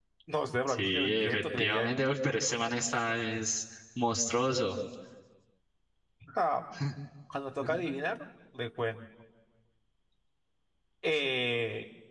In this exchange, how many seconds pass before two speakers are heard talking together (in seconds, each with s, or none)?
0.7 s